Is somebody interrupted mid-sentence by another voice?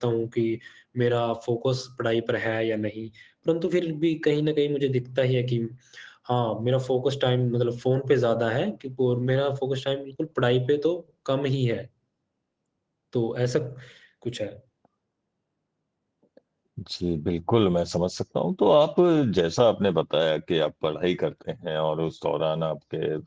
No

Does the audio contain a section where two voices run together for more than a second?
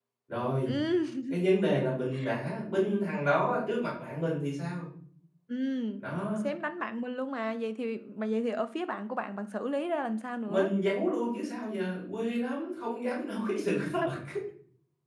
No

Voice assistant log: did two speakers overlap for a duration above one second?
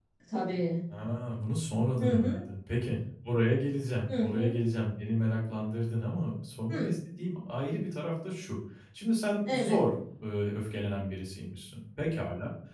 No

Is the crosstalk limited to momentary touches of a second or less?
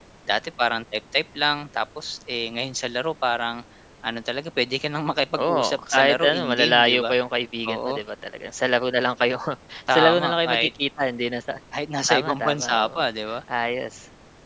No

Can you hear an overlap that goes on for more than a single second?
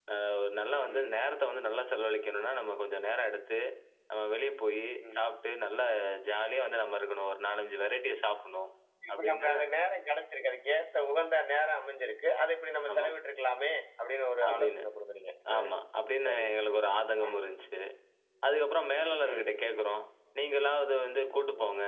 No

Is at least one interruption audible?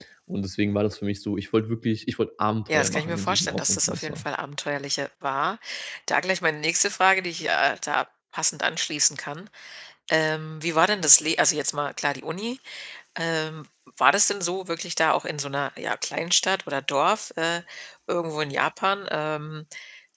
Yes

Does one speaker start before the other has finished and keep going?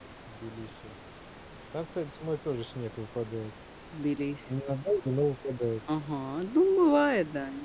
No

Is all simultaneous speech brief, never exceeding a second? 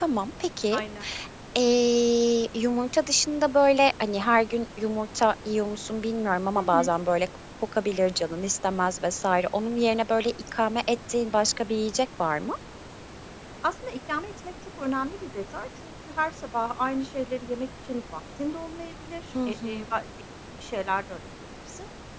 Yes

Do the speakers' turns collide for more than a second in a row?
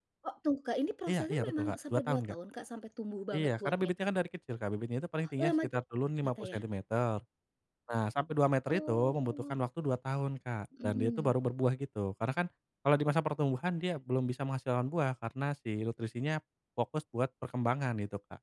Yes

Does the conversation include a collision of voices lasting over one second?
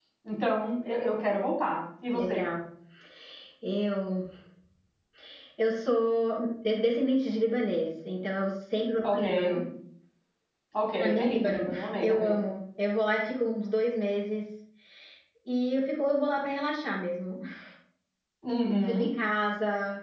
Yes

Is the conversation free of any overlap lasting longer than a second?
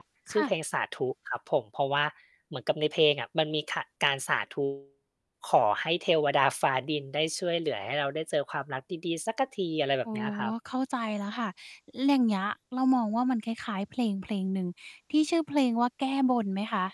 Yes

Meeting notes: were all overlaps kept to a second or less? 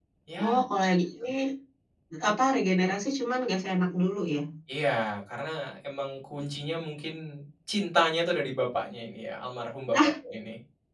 Yes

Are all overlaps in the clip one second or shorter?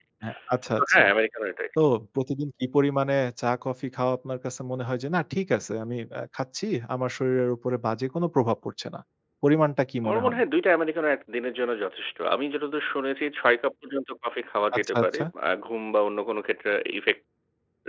Yes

